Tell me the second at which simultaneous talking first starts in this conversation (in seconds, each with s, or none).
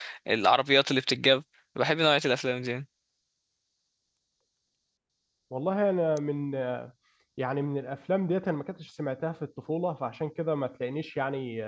none